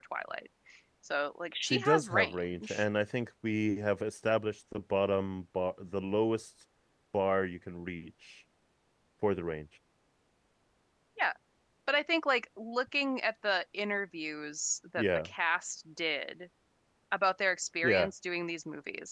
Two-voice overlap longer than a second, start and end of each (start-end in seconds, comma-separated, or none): 1.6-2.8